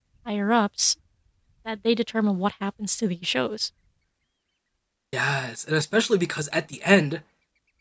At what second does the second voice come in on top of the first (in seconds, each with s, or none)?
none